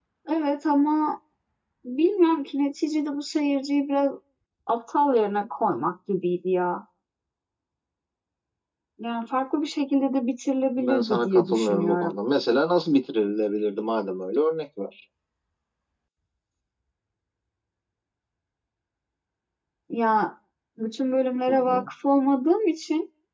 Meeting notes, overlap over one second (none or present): present